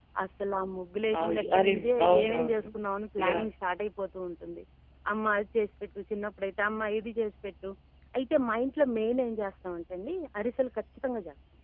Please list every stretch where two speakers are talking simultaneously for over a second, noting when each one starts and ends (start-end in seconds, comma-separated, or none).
1.2-2.7